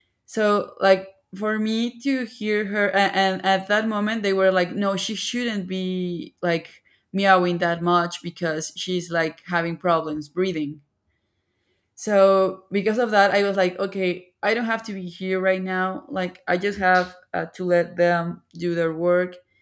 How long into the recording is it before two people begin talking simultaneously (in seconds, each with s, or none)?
none